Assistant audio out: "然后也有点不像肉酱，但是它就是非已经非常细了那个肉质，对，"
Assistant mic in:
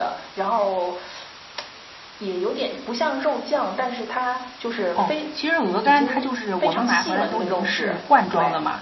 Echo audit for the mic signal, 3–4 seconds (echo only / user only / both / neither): echo only